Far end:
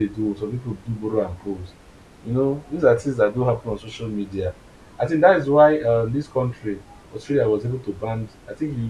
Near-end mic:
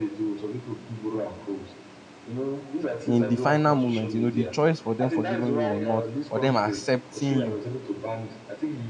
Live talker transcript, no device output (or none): in the final moment, you know, the choice for them forgiving you or not, or them accepting you